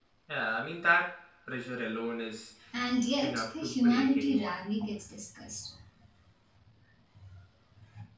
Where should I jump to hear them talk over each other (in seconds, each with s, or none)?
3.2 s